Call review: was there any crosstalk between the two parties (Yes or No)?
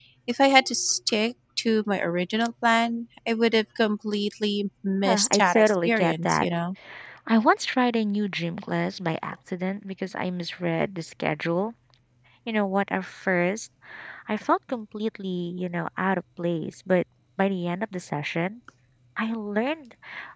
Yes